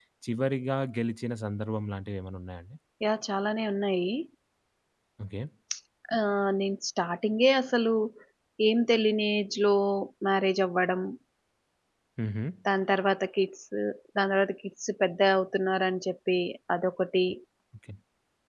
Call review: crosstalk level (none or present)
none